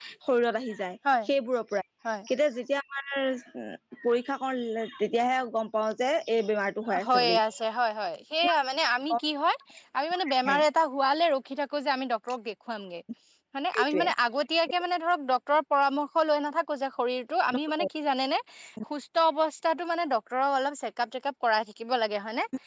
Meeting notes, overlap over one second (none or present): none